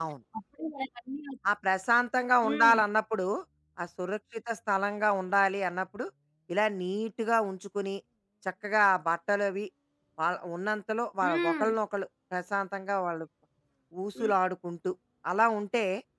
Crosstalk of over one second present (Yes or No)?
No